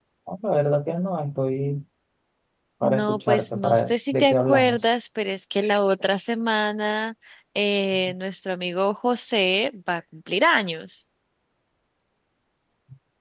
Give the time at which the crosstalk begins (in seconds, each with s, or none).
2.8 s